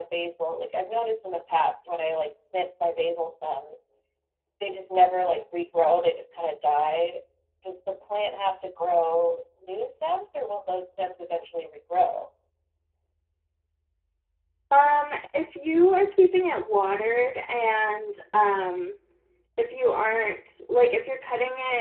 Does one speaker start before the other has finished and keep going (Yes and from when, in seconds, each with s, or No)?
No